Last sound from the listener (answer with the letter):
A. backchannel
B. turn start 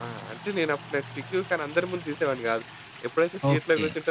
A